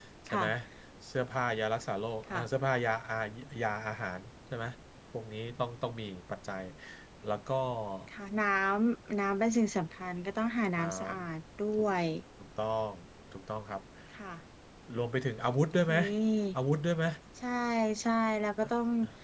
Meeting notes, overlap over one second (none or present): none